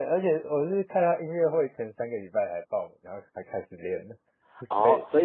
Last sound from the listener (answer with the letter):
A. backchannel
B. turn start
B